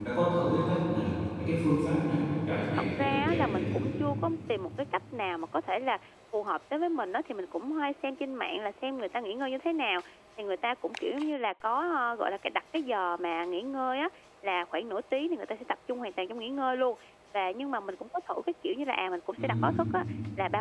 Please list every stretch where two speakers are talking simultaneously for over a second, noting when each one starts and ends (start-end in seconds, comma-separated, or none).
2.5-3.8